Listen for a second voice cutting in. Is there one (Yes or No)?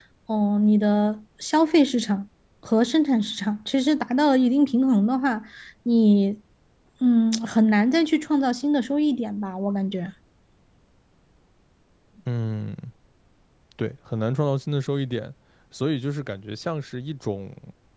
No